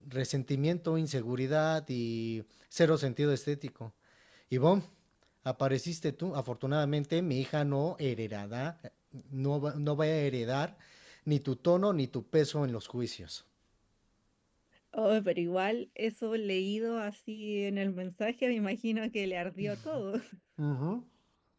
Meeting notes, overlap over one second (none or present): none